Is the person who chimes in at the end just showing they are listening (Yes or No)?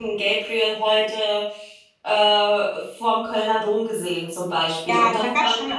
No